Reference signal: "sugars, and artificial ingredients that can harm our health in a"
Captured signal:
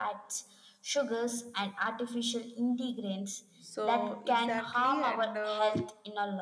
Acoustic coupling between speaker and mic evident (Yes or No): Yes